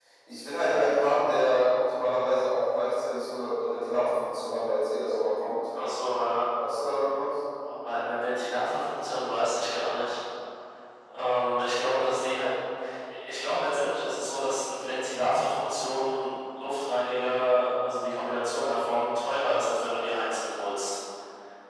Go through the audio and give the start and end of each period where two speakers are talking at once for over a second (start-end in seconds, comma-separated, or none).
none